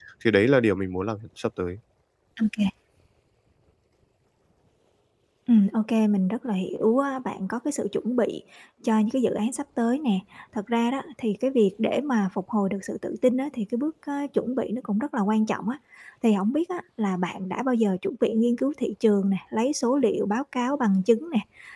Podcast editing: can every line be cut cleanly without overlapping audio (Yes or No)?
Yes